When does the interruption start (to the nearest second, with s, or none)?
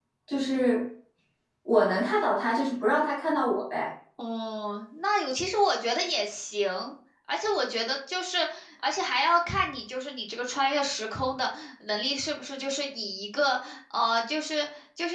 none